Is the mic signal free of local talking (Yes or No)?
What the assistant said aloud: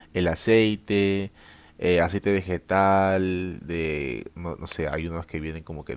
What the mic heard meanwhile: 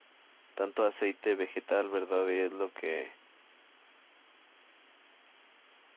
No